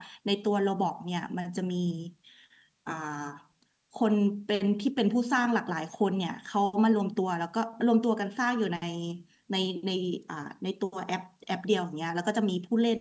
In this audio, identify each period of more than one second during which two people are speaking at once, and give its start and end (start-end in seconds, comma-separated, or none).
none